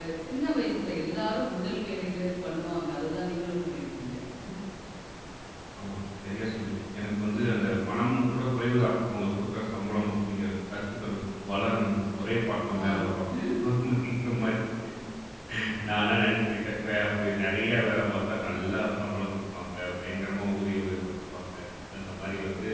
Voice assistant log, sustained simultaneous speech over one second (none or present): none